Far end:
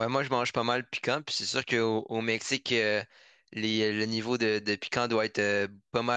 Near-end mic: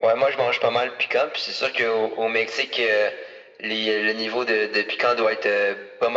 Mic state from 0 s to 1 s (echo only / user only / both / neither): echo only